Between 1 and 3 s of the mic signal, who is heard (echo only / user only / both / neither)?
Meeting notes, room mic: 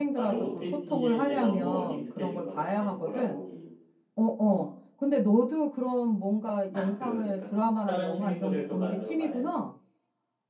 both